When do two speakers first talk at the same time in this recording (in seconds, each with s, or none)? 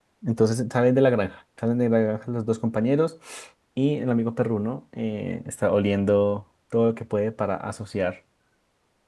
none